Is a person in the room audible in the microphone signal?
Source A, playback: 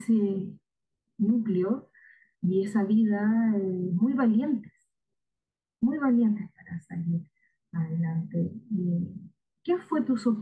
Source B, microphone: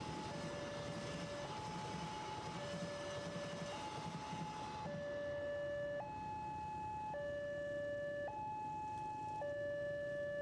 No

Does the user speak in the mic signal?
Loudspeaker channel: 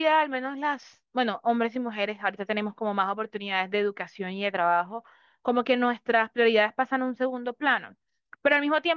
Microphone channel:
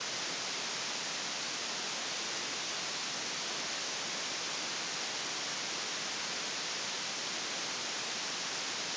No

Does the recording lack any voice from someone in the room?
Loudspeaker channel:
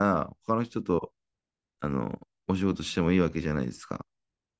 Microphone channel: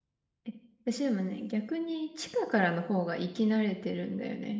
No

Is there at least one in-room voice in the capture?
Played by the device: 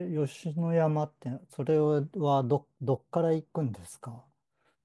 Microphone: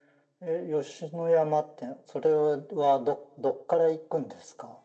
No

